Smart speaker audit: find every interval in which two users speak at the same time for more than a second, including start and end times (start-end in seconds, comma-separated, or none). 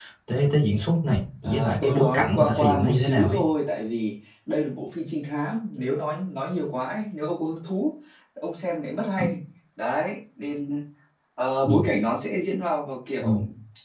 1.4-3.4